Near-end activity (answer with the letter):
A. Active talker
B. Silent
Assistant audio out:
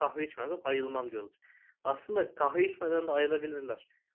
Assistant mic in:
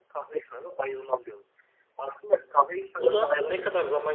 A